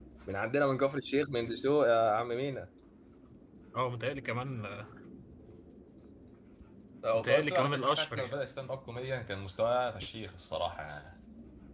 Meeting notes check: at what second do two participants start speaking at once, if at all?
7.1 s

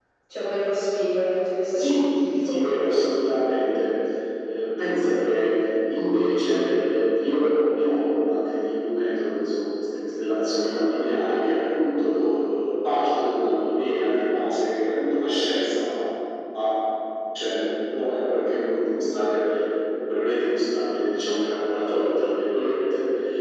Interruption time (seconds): 1.7 s

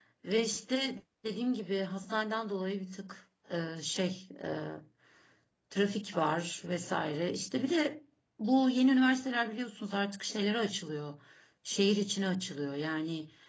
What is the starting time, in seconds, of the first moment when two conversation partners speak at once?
none

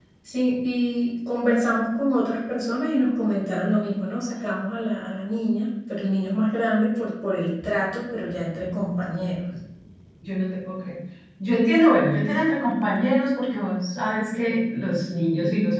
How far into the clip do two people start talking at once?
none

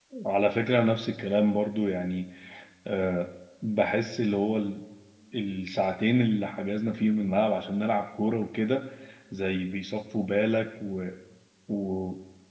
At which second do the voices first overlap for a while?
none

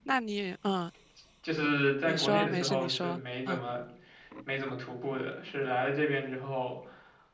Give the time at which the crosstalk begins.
2.0 s

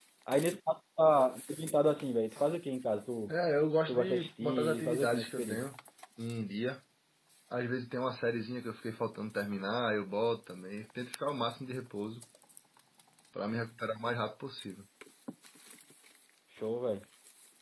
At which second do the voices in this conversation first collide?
3.9 s

